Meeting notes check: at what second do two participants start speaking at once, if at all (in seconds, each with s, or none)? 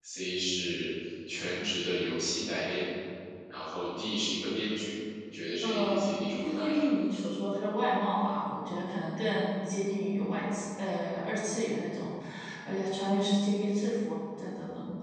5.6 s